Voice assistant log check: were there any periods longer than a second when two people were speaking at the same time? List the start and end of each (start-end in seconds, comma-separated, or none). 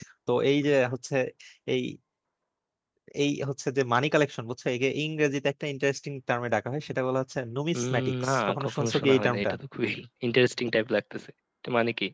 7.8-9.5